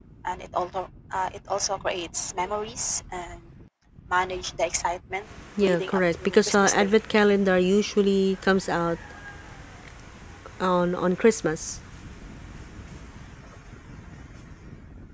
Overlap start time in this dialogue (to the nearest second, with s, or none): 6 s